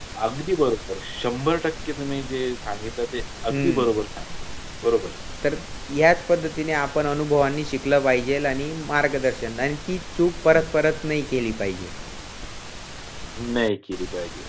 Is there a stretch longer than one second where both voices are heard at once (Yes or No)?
No